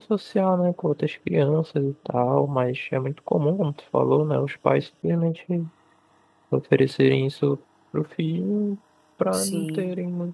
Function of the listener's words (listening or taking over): listening